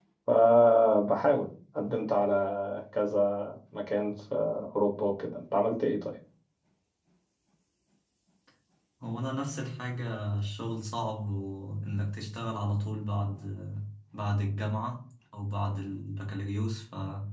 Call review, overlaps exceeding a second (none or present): none